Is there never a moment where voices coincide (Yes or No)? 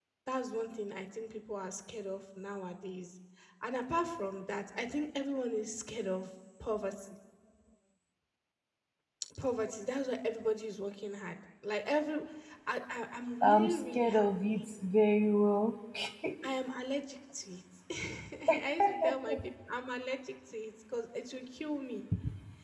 No